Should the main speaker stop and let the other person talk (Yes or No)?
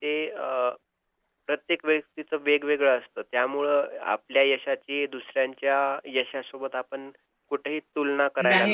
Yes